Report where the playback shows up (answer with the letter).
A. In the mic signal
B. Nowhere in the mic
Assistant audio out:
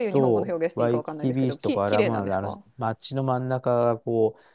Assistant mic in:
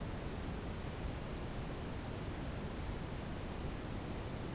B